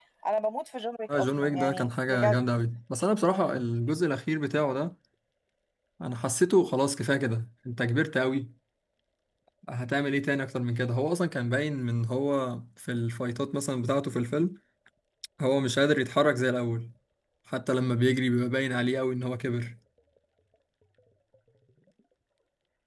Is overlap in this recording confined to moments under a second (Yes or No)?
No